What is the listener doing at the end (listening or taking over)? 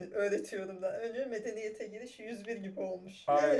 taking over